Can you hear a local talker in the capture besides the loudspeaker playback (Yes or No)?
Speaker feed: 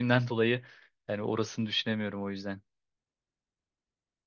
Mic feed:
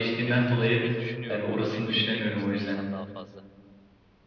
Yes